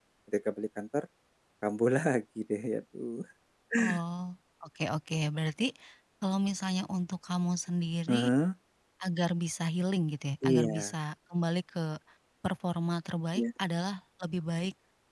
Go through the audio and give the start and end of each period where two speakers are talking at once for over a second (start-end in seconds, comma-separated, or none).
none